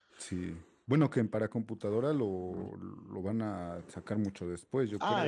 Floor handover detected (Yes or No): Yes